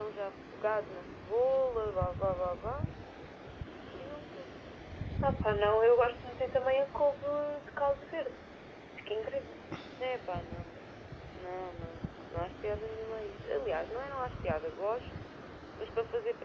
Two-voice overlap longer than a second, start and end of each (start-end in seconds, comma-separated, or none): none